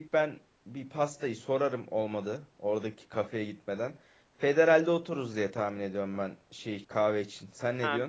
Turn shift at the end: Yes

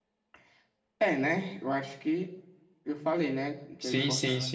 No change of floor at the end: No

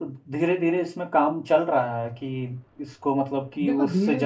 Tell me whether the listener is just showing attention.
No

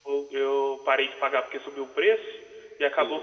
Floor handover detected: No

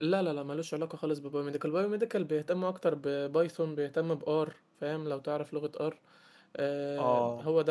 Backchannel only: No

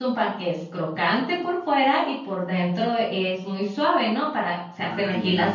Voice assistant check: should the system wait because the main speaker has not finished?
Yes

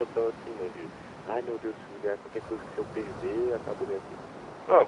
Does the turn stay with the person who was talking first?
No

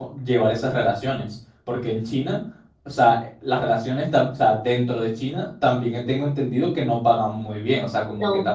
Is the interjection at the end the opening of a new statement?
No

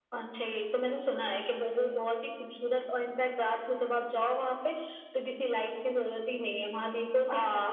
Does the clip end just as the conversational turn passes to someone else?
Yes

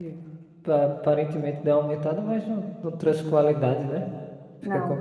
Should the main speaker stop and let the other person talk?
Yes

